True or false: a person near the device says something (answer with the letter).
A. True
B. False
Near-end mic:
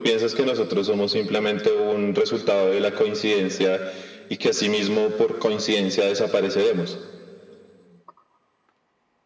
B